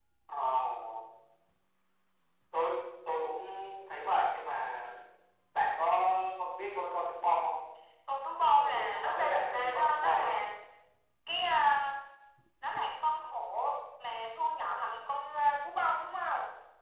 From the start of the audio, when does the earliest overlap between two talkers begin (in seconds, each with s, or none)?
8.6 s